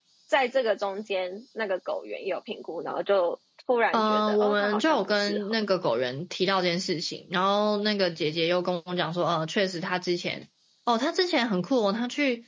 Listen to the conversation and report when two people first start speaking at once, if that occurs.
3.9 s

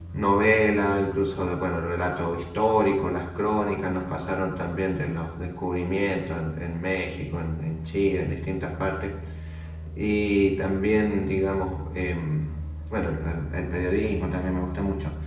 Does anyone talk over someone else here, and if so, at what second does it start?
none

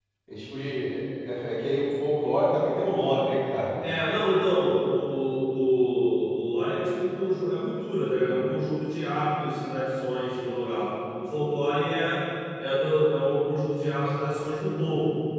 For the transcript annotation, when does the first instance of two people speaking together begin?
none

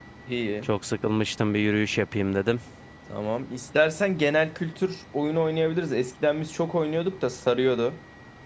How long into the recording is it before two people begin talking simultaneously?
none

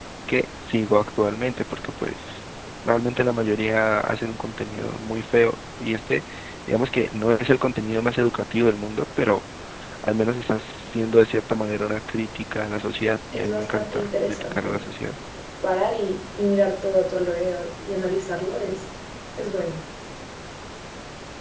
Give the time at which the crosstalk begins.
13.3 s

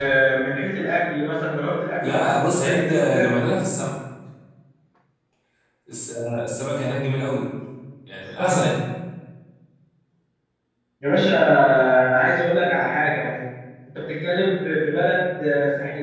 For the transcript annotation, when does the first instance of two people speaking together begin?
2.0 s

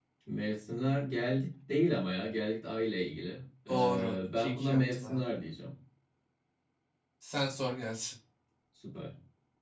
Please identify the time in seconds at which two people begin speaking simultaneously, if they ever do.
3.7 s

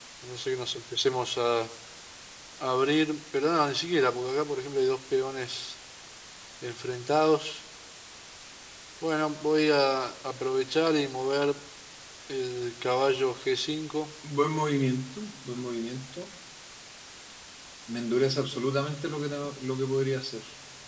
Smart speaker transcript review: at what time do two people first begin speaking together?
none

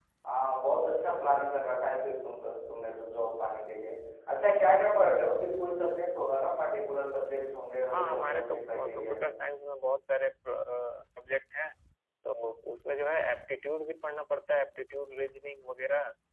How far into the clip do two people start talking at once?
7.9 s

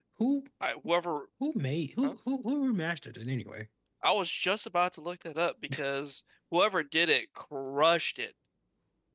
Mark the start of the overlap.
none

